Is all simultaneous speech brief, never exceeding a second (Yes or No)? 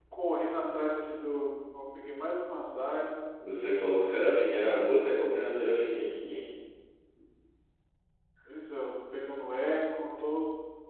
Yes